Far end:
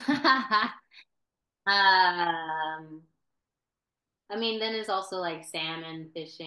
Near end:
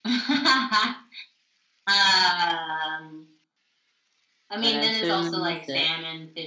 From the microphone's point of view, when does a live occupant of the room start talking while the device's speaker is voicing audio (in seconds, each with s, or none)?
4.6 s